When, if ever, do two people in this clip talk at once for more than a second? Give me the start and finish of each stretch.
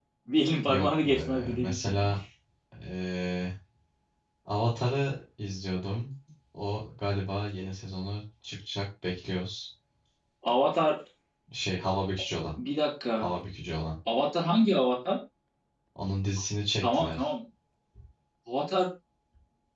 0.7-1.9

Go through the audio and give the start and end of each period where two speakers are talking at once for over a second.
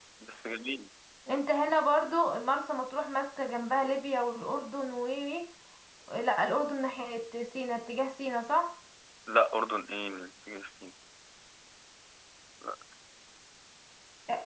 none

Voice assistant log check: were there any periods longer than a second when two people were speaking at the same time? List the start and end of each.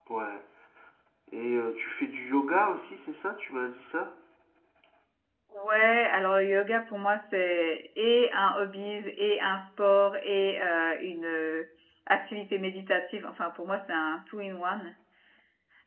none

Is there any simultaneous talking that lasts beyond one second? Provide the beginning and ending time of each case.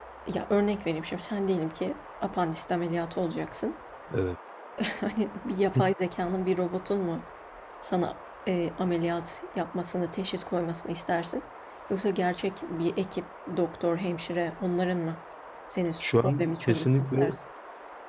16.0-17.2

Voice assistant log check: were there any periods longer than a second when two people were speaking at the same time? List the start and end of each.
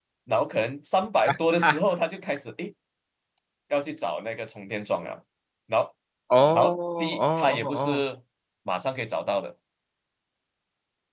6.5-8.0

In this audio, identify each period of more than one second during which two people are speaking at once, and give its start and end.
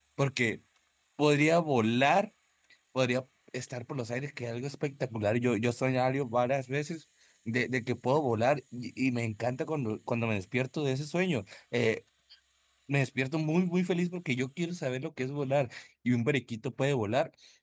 none

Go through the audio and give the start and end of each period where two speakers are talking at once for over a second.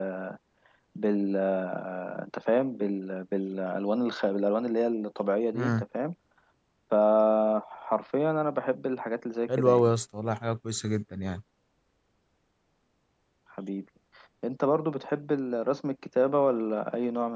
none

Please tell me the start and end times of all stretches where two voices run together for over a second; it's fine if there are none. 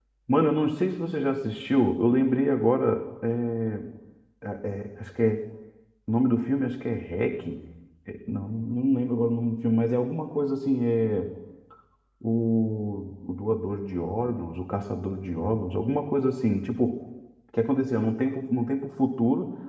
none

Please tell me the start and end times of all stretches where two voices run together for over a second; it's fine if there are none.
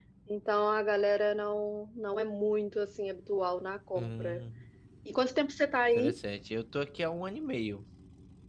none

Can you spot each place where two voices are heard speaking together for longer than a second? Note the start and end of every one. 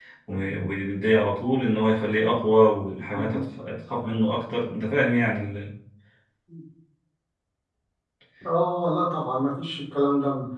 none

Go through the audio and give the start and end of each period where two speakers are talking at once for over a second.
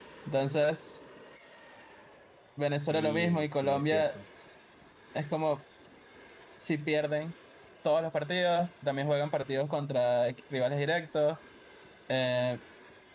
2.9-4.2

